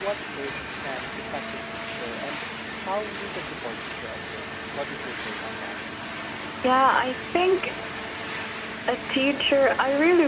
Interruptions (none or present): none